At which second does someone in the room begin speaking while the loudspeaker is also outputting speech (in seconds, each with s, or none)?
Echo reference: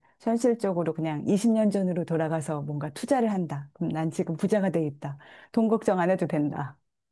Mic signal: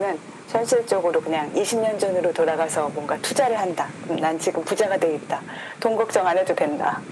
none